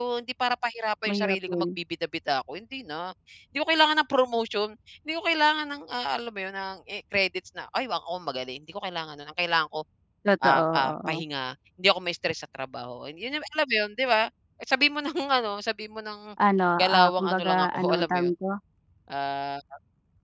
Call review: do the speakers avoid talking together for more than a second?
No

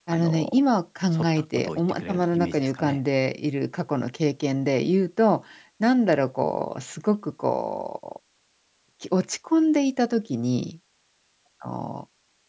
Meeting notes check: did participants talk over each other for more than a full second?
Yes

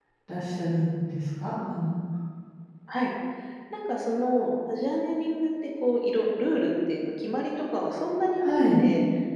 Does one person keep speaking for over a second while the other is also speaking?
No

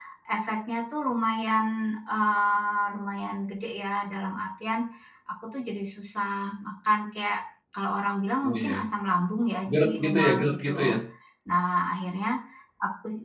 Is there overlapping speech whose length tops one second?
Yes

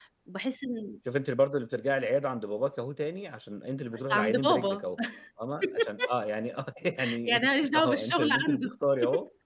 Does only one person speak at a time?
No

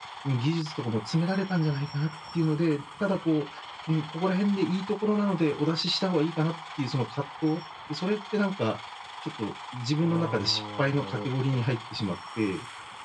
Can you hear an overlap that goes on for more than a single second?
Yes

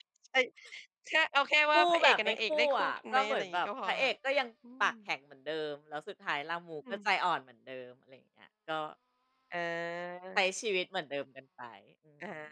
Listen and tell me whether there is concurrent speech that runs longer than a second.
Yes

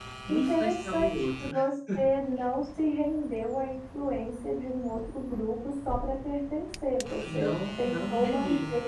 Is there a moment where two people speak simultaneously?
Yes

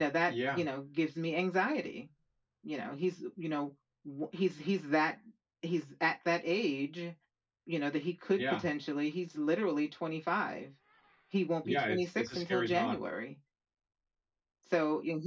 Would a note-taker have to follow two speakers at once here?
Yes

